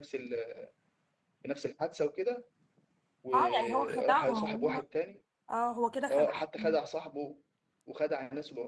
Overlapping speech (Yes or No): Yes